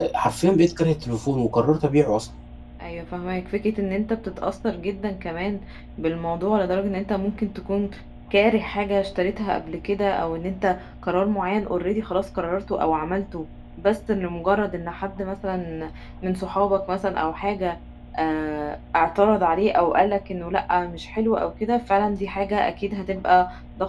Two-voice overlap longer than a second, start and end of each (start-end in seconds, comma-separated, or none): none